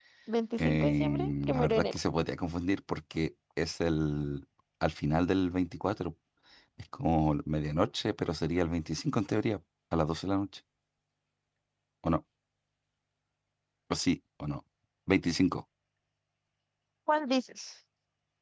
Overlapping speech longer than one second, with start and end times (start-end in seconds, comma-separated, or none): 0.6-2.0